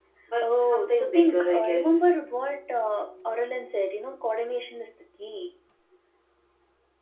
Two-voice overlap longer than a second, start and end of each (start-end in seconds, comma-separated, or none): 0.6-2.0